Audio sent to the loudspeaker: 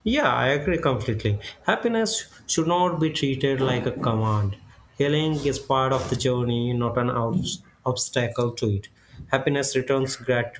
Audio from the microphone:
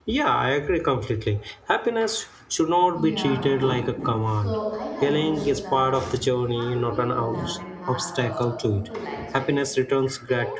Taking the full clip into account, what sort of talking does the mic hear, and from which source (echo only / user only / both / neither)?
both